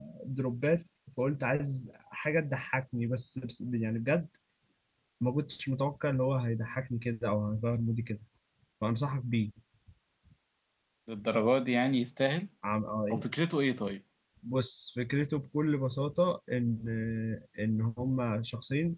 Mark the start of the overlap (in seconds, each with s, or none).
none